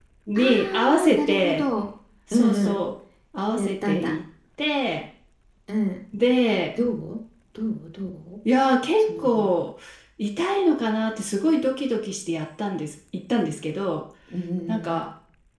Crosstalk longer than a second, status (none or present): present